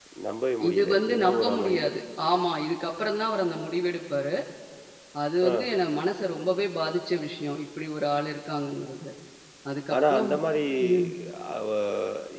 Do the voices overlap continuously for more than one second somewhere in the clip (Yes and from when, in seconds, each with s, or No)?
Yes, from 0.7 s